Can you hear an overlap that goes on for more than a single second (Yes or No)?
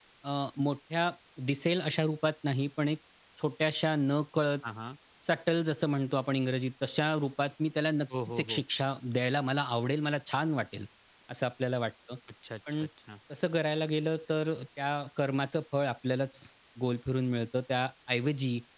No